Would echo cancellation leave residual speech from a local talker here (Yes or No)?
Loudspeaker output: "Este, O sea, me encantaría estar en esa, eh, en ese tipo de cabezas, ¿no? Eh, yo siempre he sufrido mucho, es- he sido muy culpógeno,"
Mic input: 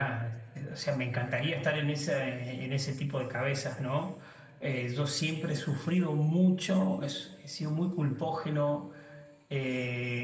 No